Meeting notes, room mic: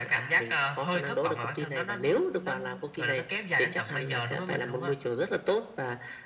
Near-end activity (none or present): none